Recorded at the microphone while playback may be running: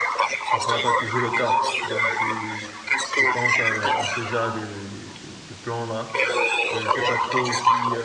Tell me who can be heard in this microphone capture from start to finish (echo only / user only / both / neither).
both